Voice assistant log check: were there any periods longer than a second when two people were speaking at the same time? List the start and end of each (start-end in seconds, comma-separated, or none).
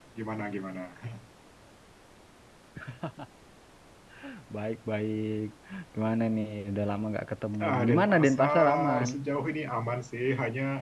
7.6-9.1